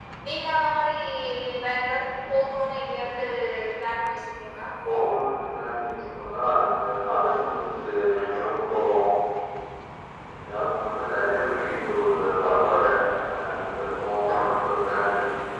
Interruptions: none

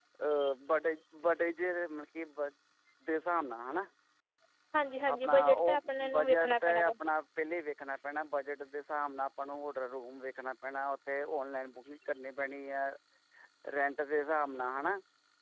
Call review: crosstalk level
present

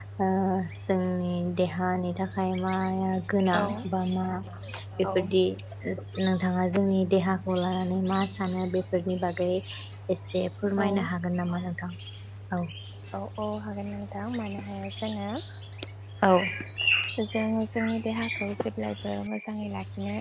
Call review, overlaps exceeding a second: none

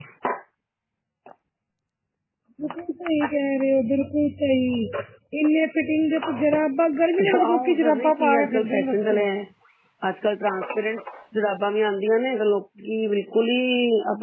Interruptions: present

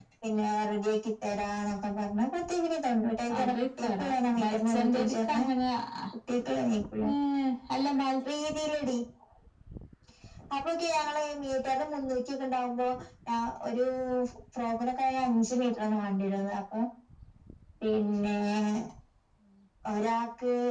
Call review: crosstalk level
present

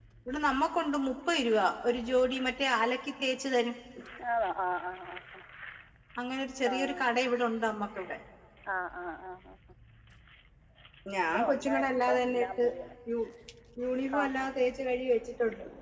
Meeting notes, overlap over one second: present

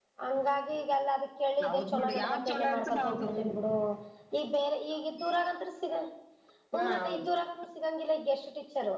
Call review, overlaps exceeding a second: present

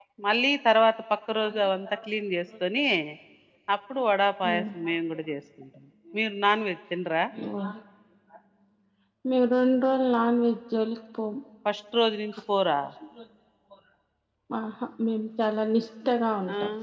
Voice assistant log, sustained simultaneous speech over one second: none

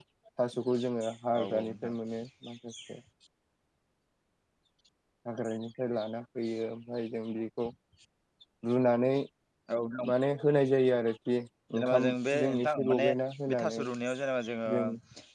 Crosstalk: present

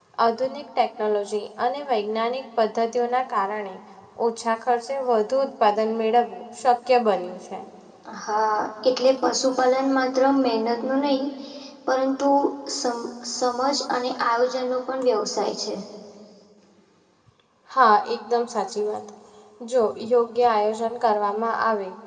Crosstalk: none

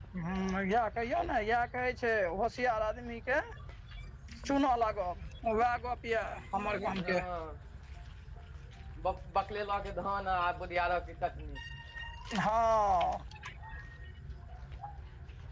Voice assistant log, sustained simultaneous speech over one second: none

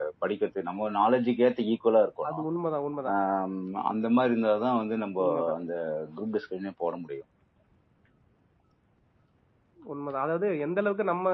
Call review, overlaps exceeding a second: none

